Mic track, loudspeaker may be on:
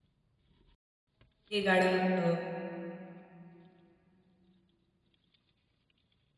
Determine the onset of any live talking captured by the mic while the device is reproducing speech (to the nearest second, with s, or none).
2 s